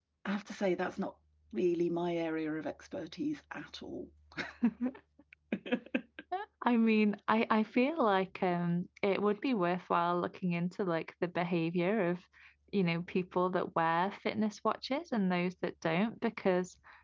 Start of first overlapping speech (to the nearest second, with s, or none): none